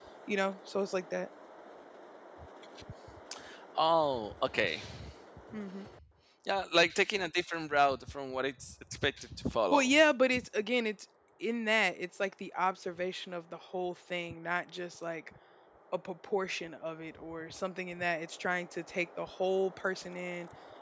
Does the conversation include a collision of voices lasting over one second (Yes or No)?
No